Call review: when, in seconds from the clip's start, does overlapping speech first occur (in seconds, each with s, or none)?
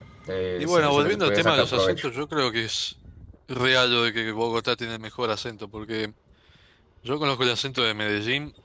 0.6 s